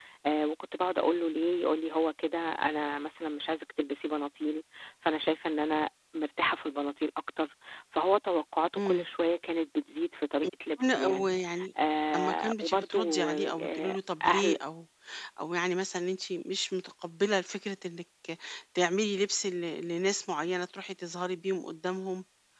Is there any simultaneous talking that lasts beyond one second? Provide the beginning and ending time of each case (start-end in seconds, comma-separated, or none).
12.1-14.6